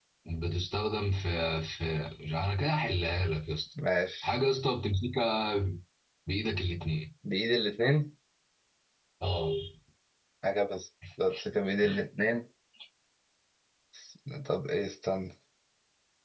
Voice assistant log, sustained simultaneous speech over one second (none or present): none